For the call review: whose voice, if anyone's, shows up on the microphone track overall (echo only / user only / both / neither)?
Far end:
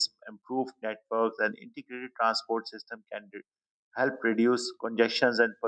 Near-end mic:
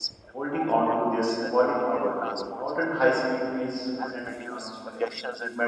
both